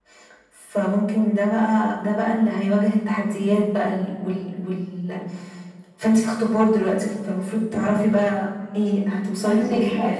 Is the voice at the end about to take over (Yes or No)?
Yes